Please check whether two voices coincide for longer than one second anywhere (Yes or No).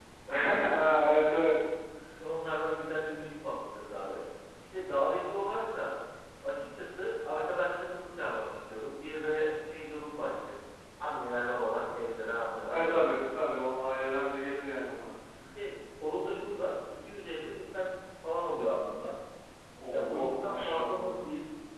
Yes